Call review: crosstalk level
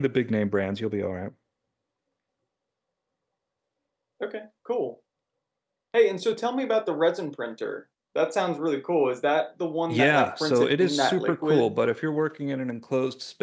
present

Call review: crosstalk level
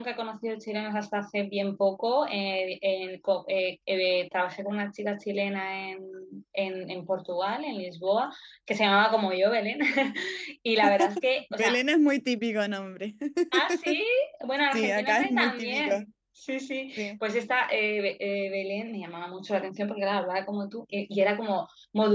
present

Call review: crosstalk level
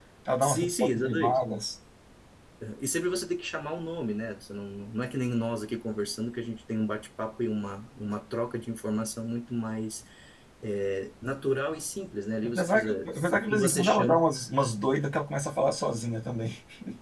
present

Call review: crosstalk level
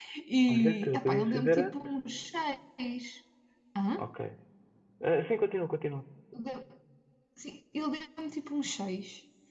present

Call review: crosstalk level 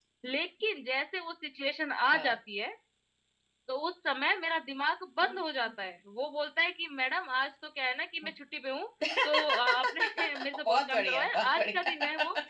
present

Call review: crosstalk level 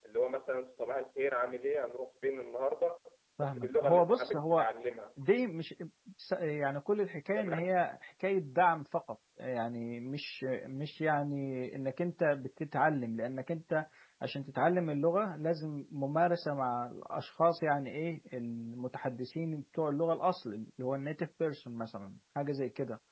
present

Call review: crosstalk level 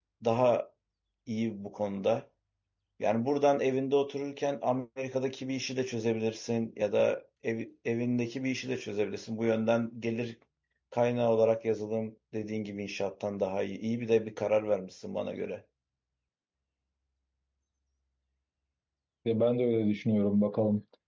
none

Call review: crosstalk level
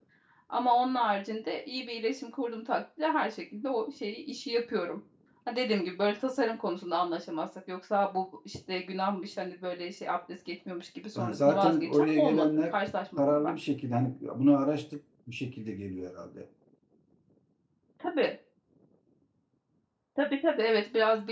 present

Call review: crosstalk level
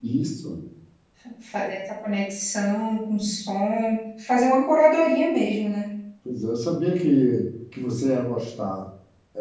none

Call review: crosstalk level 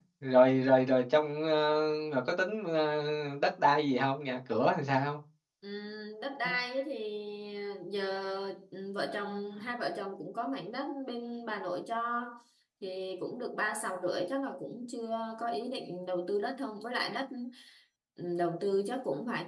none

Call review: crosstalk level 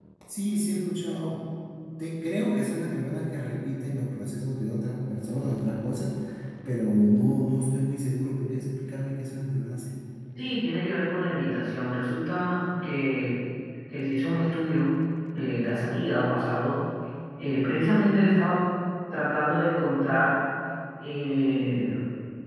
none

